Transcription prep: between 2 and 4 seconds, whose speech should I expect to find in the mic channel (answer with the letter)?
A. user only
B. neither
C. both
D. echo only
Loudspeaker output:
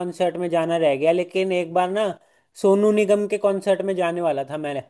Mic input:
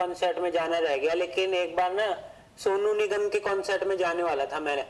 D